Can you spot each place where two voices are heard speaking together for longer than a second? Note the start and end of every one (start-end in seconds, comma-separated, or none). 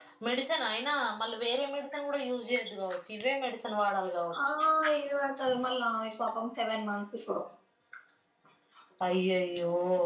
none